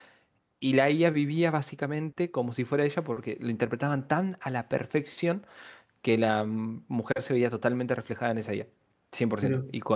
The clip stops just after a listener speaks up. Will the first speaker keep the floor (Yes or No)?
Yes